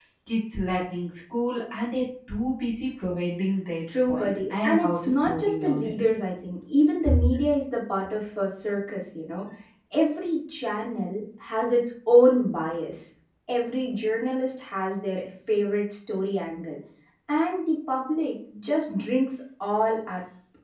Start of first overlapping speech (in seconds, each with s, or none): 4.0 s